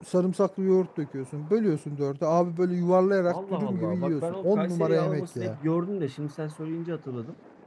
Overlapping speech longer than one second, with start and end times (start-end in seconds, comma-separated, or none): 3.3-5.6